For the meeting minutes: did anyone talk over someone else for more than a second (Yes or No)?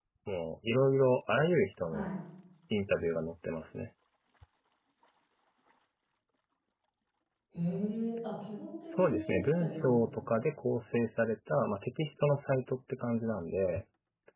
Yes